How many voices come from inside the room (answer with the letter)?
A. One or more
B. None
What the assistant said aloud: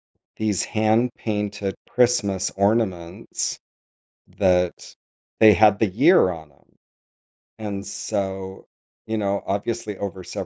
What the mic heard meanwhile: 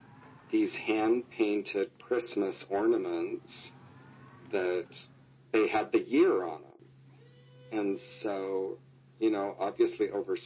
B